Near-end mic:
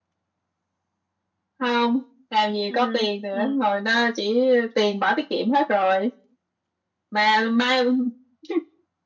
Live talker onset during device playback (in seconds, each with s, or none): 2.7 s